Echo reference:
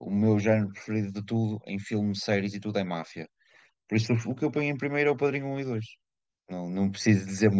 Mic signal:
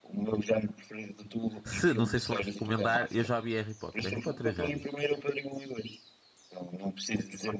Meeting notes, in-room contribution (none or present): present